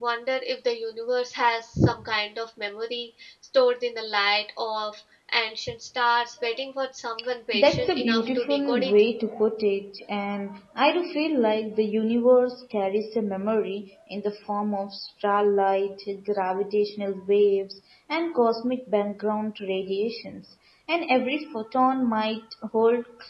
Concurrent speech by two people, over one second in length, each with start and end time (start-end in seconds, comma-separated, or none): 7.5-8.9